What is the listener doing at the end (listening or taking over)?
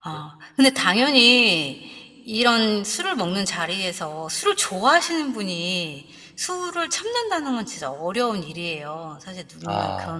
listening